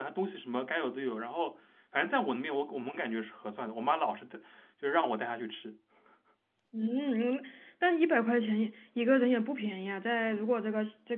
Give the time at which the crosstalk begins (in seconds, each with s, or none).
none